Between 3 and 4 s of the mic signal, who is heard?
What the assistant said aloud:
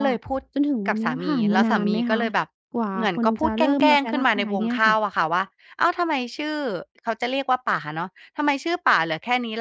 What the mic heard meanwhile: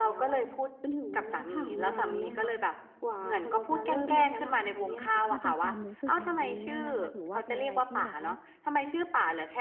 echo only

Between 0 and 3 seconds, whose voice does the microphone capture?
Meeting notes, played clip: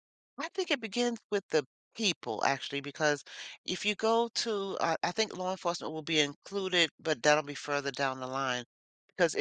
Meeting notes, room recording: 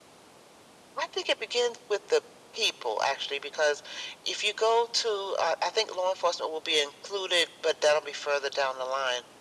echo only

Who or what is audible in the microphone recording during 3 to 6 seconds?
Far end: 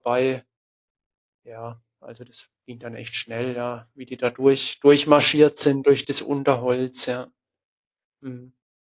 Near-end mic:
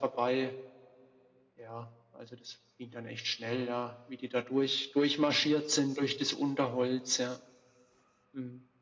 echo only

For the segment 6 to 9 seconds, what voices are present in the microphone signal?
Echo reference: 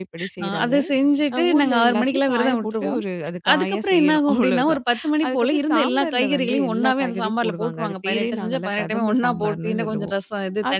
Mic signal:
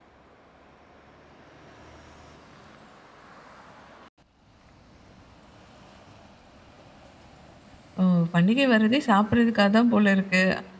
user only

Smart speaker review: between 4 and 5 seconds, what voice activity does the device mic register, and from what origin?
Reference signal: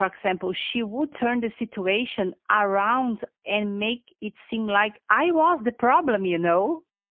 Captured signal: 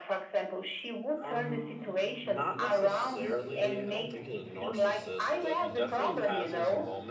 both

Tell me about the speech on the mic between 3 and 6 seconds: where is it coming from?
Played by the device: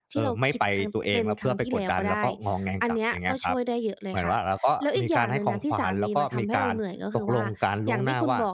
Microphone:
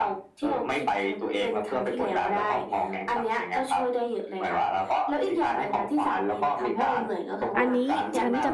echo only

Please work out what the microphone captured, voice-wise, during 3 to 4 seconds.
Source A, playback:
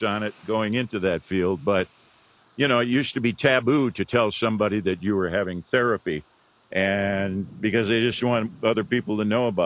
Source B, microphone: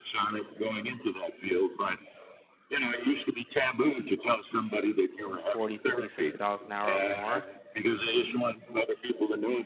echo only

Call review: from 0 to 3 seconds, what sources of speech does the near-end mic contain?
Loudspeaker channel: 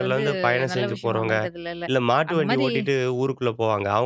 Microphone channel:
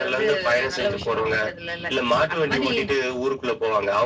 echo only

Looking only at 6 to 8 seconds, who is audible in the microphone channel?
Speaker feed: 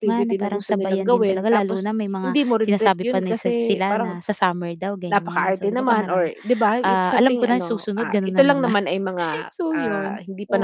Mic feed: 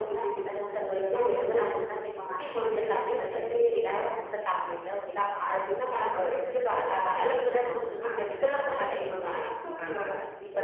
echo only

